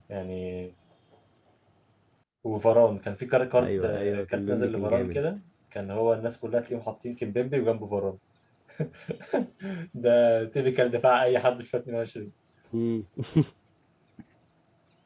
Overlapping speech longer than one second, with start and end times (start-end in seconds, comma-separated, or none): 3.6-5.2